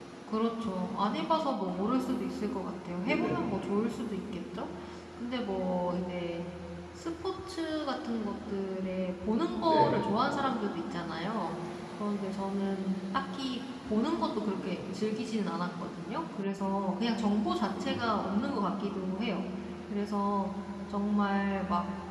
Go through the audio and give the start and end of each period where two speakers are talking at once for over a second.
none

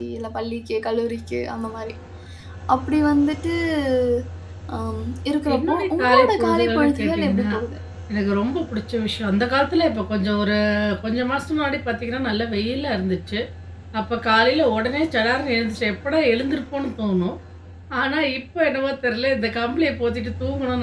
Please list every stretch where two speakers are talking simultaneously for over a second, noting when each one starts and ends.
5.5-7.5

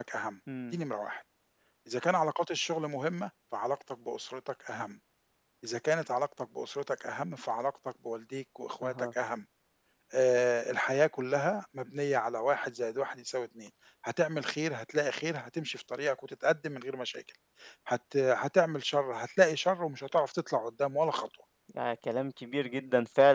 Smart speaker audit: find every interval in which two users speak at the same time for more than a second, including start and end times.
none

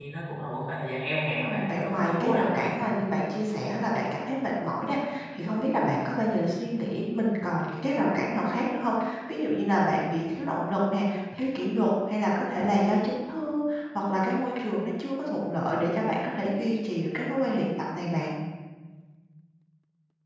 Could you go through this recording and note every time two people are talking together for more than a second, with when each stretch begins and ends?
1.3-2.7

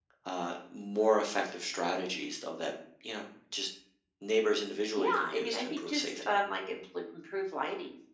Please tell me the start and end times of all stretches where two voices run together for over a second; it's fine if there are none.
5.0-6.3

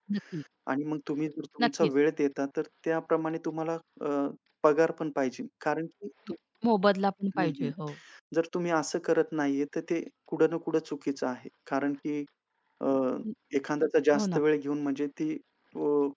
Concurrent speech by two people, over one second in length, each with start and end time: none

